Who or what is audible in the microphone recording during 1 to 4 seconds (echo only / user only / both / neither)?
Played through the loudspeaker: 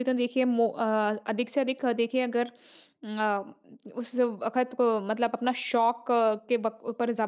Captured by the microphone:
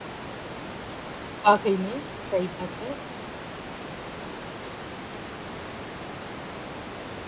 user only